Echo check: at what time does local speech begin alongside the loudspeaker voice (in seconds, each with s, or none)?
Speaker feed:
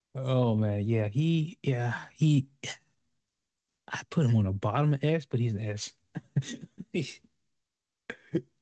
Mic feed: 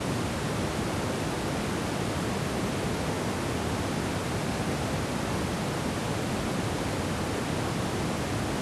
none